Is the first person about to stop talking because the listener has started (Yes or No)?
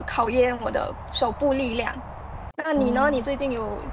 No